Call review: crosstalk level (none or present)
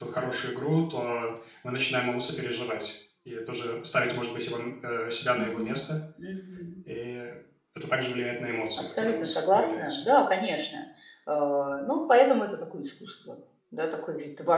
present